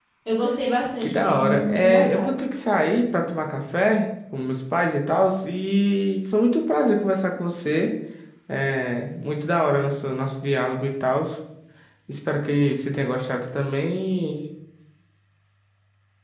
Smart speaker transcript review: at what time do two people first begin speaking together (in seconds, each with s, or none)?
1.0 s